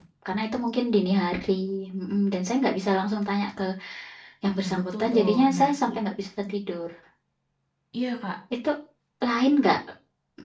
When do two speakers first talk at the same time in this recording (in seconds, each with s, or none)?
4.6 s